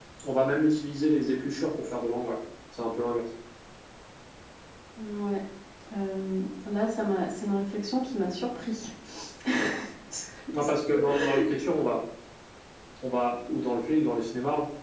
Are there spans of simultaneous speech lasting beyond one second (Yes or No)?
No